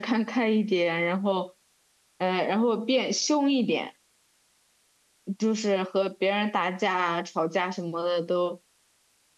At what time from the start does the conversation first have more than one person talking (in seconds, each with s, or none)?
none